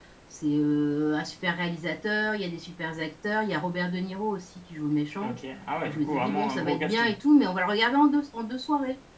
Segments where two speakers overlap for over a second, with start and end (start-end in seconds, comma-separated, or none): 5.8-7.2